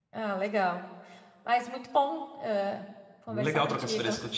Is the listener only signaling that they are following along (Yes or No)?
No